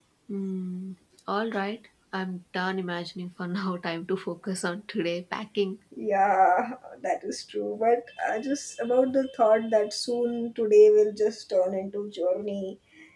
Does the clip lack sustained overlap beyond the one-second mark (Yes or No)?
Yes